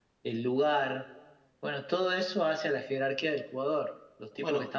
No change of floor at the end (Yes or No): Yes